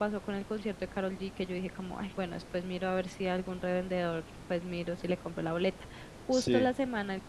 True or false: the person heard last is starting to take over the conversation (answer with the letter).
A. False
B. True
A